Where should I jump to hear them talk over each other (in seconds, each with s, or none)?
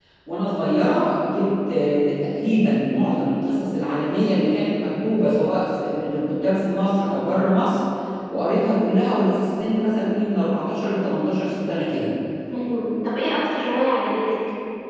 none